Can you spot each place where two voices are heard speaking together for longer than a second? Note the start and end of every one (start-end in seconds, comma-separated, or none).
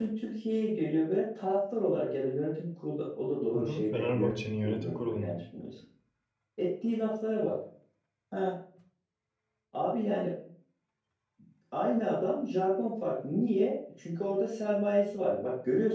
3.5-5.4